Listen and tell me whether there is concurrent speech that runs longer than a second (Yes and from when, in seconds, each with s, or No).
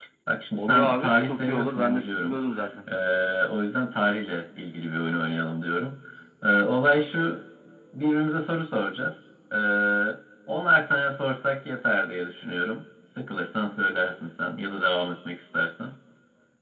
Yes, from 0.6 s